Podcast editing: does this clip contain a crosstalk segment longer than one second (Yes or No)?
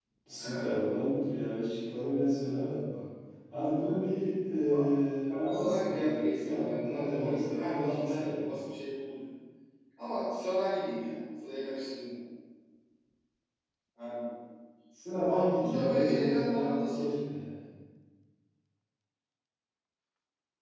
Yes